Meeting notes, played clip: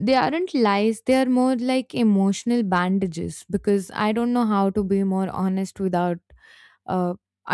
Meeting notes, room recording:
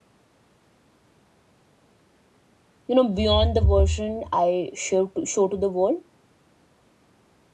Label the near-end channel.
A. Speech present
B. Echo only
A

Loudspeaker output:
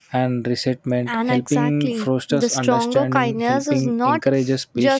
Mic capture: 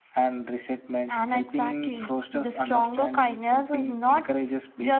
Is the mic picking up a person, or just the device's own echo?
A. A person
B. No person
B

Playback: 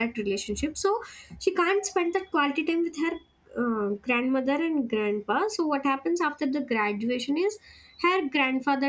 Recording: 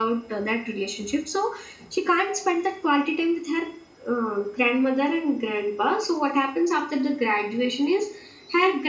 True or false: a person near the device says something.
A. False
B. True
A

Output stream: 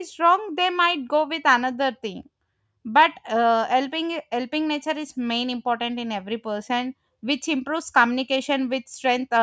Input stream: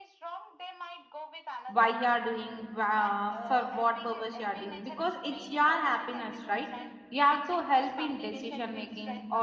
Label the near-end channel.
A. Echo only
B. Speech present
B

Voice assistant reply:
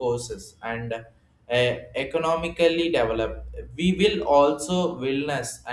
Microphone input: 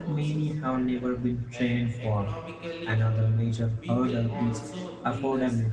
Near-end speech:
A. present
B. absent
A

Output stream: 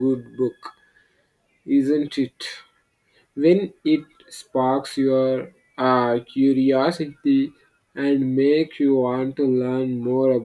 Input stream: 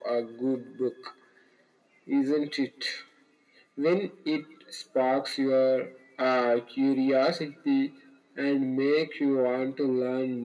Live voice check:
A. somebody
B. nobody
B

